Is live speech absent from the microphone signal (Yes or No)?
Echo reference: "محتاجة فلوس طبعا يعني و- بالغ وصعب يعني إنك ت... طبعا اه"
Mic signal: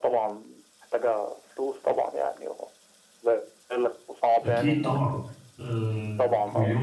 No